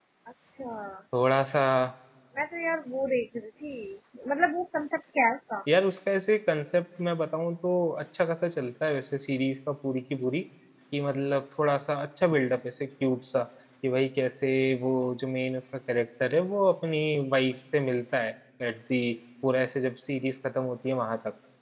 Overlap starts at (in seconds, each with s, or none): none